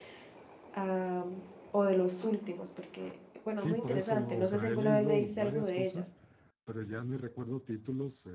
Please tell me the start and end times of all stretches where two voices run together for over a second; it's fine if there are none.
3.6-5.9

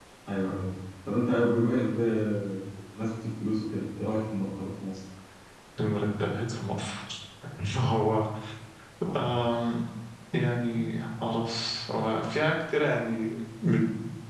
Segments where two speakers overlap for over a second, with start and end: none

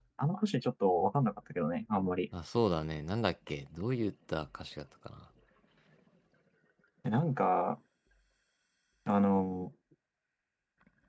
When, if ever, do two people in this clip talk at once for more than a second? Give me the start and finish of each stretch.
none

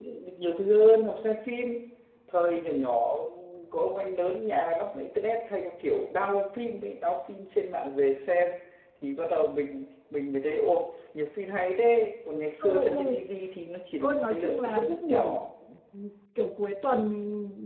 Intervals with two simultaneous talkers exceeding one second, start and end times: 14.0-15.4

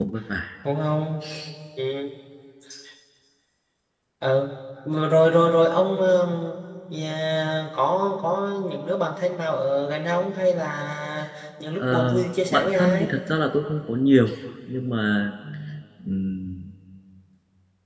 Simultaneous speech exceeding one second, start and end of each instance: 11.8-13.1

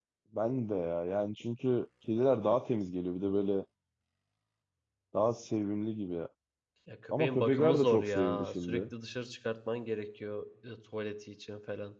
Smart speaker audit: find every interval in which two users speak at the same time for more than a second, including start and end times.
7.1-8.8

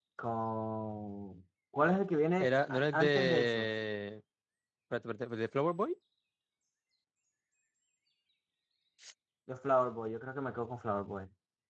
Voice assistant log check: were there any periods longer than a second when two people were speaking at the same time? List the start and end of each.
2.4-3.7

